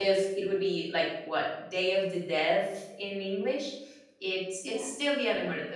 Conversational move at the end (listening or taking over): listening